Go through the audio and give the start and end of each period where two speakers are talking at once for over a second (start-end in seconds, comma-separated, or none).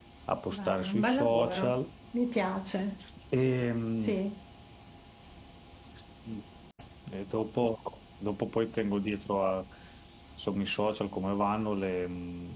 0.5-1.8